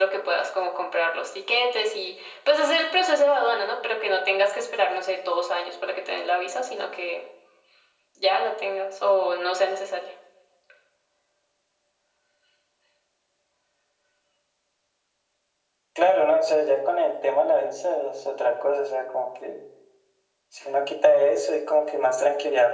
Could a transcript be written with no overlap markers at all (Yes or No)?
Yes